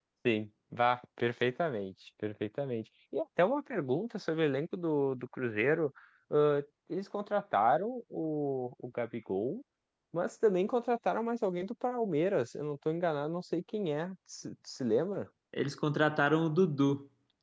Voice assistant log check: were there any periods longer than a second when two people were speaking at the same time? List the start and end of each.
none

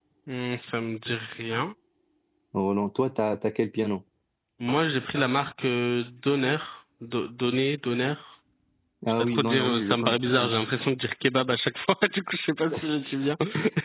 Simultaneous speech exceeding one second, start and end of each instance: 9.2-10.5

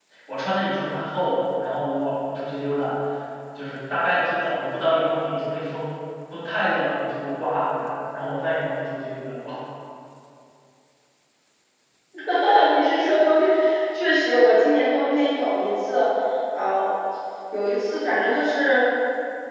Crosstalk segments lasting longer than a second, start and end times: none

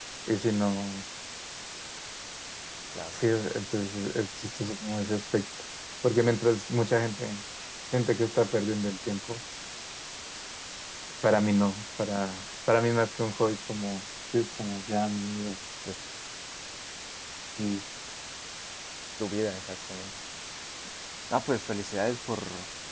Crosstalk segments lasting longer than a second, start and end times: none

